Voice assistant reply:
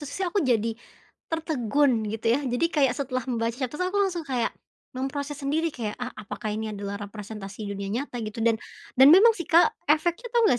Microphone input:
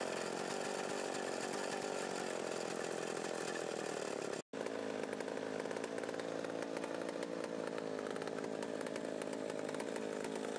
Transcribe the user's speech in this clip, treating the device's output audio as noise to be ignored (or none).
none